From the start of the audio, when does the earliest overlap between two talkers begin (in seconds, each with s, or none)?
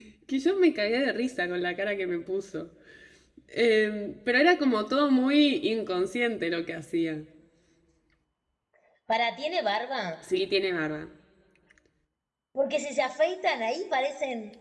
none